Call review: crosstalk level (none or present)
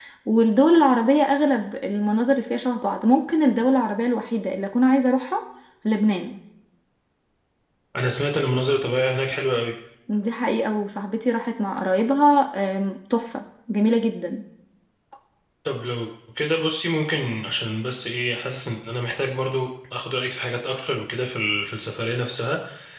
none